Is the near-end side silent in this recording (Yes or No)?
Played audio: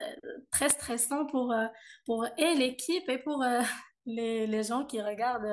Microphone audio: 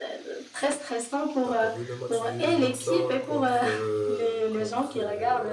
No